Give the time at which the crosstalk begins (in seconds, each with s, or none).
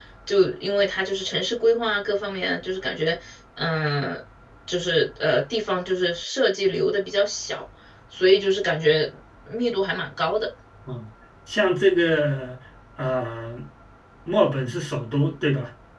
none